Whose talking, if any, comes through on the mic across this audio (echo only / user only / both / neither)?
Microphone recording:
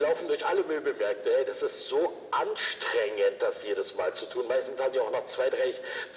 echo only